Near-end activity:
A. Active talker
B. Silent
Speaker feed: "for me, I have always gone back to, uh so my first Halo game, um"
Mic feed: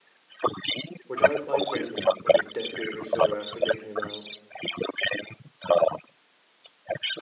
A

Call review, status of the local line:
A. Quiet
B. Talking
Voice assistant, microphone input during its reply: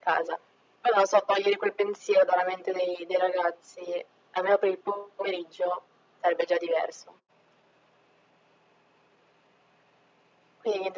A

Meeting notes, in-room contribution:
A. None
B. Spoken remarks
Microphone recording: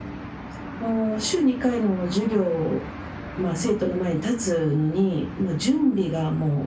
A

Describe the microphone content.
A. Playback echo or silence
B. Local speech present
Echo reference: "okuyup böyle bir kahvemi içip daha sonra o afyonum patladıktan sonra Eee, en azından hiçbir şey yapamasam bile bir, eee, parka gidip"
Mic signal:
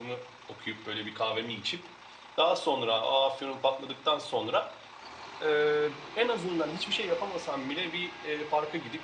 A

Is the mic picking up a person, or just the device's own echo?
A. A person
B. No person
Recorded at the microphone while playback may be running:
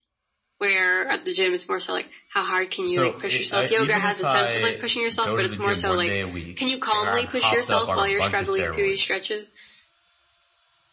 A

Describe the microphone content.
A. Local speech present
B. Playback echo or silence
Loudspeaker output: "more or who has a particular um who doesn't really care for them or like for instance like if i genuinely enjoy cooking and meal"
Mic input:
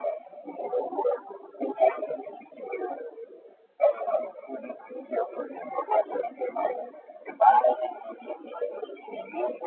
B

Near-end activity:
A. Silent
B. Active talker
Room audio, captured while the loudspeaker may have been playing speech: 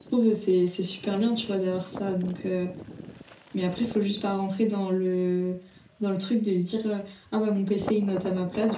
A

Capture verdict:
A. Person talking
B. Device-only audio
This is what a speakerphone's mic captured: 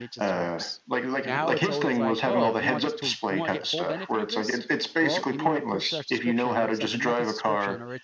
A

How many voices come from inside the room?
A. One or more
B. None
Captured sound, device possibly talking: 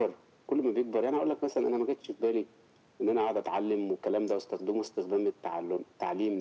B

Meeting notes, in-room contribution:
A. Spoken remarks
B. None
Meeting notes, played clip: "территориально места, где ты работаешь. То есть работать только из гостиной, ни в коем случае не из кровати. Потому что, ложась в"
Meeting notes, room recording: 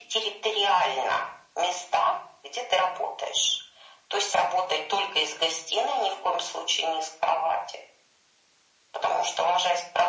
B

